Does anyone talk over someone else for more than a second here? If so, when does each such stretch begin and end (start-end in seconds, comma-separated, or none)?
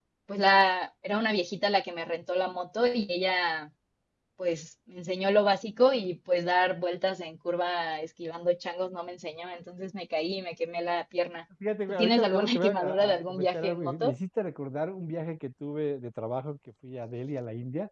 11.9-14.1